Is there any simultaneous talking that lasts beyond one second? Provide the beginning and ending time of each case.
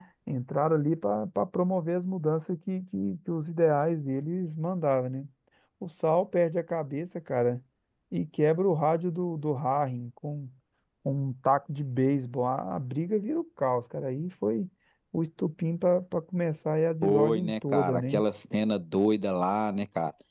17.0-18.2

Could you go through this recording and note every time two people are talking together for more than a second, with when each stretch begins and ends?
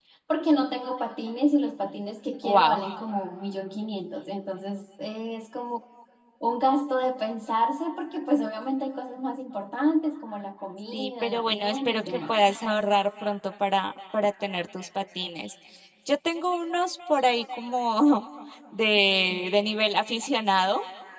10.9-12.4

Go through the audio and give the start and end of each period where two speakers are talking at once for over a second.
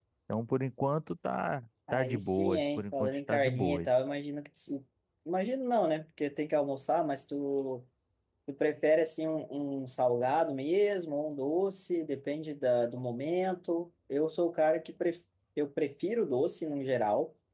1.9-4.0

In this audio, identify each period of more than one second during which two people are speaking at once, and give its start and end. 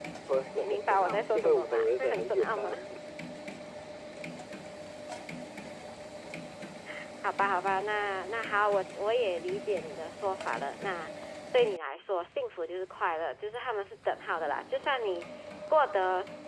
0.6-2.8

